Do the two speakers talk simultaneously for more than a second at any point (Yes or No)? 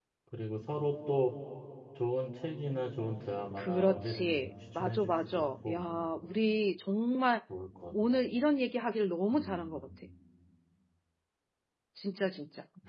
Yes